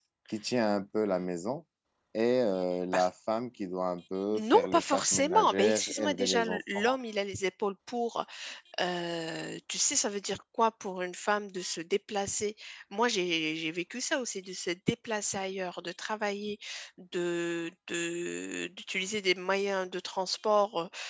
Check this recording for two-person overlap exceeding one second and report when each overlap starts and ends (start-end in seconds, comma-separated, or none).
4.4-7.0